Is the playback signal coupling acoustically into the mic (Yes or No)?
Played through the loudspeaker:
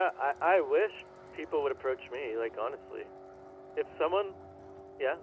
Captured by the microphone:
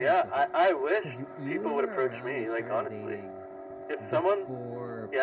Yes